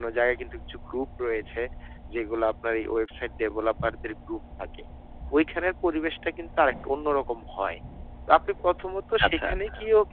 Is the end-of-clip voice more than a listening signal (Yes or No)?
No